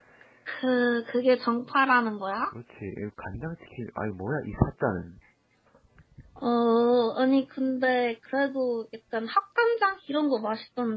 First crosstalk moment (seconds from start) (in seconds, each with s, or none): none